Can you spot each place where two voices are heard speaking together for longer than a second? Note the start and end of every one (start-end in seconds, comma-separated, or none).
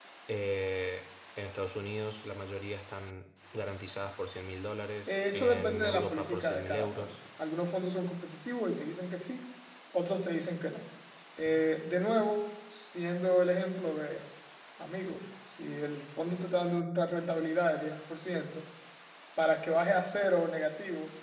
5.1-7.1